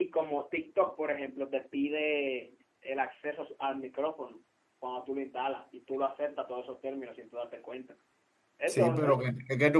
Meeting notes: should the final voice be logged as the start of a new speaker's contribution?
Yes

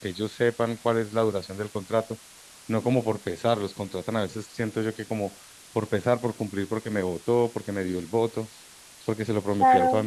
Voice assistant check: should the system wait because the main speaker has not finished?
No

